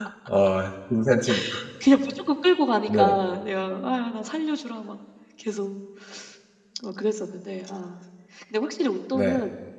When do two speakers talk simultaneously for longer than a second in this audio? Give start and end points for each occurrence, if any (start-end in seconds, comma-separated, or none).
none